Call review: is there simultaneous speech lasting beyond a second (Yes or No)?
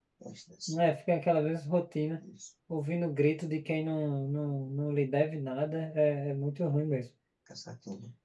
No